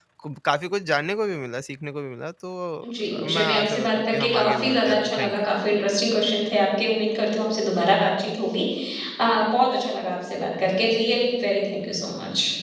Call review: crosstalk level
present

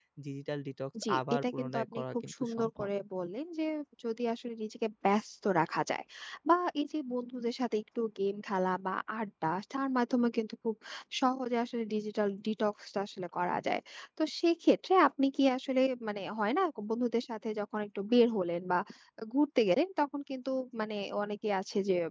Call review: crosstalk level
present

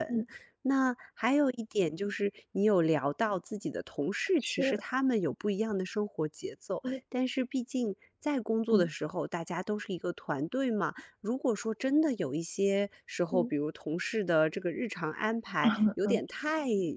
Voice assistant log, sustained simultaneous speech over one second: none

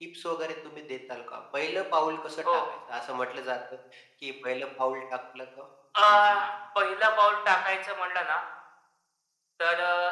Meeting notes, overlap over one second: none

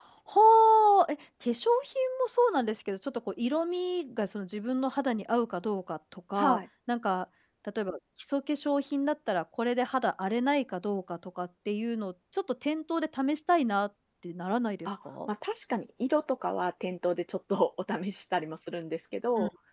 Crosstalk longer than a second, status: none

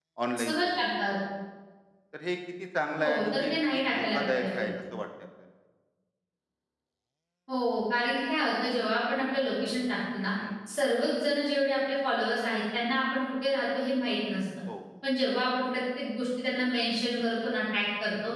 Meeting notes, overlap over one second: present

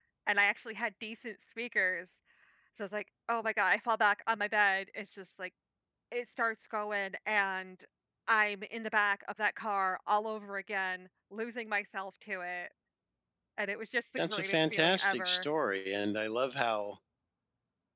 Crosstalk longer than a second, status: present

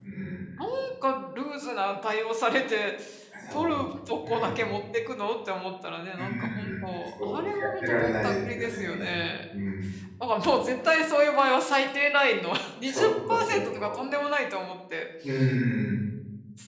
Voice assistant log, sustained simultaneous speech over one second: present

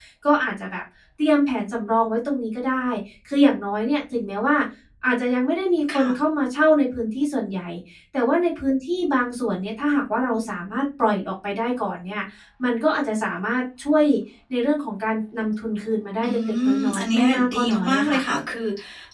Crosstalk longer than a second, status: present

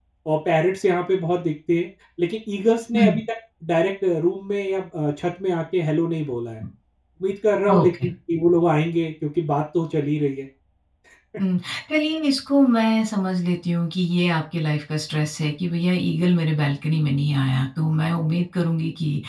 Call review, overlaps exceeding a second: none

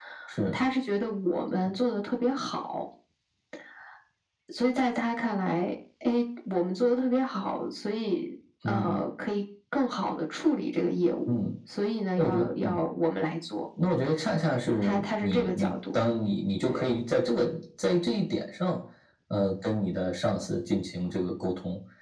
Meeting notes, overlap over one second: present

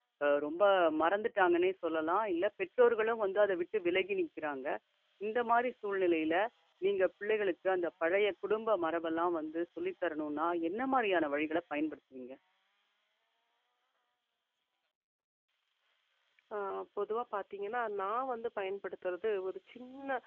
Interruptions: none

